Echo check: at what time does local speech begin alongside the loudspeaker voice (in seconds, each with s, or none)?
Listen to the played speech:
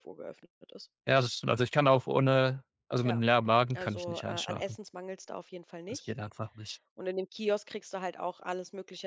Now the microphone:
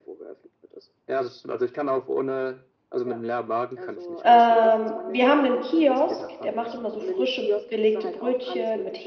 4.2 s